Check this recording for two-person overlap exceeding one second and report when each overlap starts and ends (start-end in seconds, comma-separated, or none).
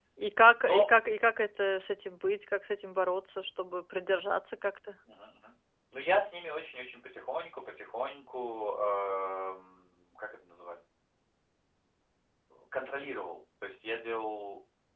none